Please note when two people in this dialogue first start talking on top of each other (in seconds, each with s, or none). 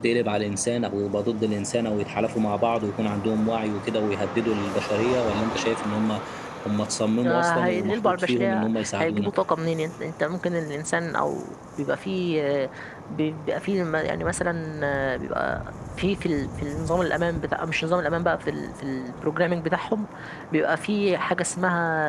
7.2 s